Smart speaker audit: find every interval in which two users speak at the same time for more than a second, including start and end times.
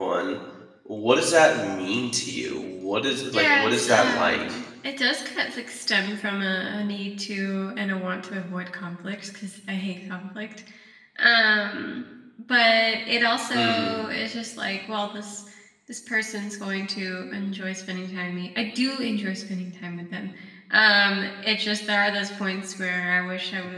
3.3-4.6

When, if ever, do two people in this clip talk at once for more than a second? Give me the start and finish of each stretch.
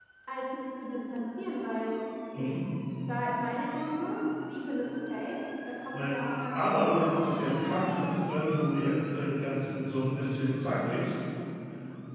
6.5-7.7

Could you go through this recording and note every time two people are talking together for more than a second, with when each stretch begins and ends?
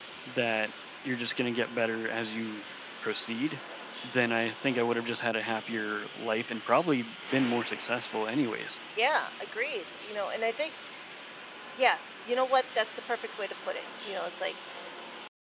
none

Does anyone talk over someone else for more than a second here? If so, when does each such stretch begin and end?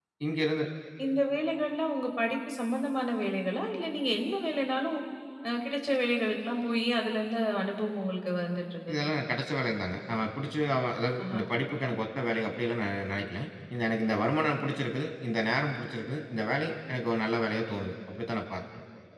none

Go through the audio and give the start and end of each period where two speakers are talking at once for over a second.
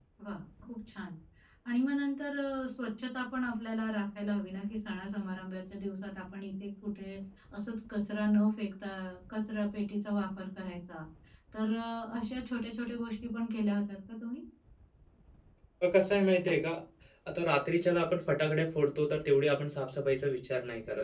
none

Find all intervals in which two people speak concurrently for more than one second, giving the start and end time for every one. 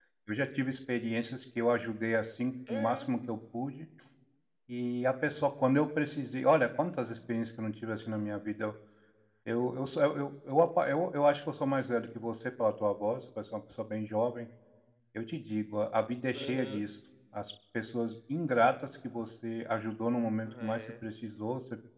none

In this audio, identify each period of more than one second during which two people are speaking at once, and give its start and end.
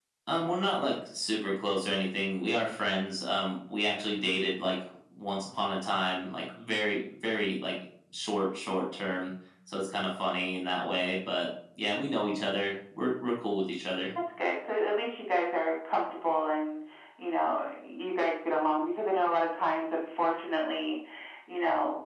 none

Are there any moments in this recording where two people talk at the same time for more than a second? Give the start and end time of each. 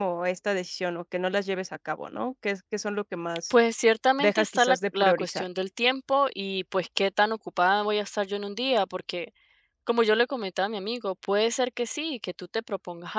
4.2-5.5

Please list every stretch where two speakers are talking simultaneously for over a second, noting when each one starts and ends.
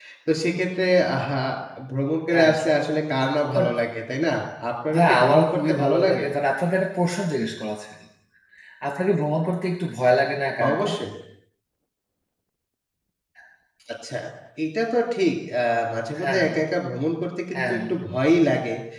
4.9-6.2

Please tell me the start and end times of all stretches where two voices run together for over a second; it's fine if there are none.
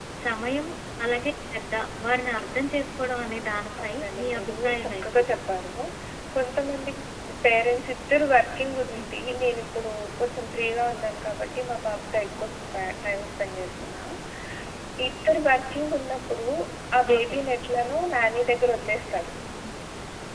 3.8-5.2

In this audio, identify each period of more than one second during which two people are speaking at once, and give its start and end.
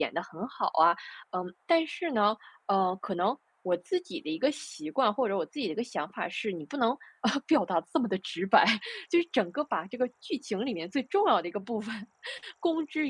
none

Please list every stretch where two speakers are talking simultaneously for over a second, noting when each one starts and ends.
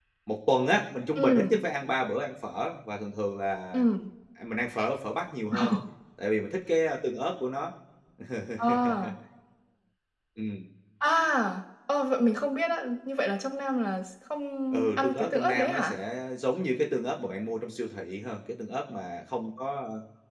14.7-15.9

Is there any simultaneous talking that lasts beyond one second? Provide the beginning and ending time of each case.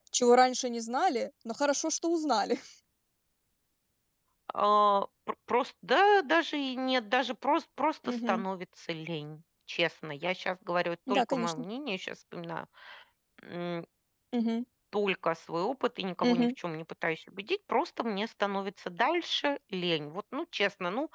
none

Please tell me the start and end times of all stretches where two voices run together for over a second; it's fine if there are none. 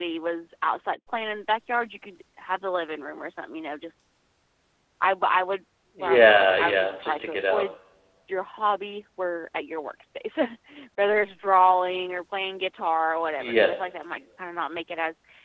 6.0-7.6

